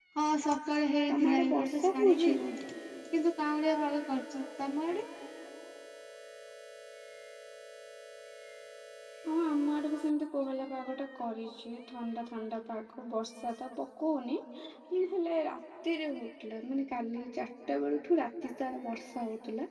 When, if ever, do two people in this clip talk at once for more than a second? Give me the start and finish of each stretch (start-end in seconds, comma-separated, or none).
1.1-2.4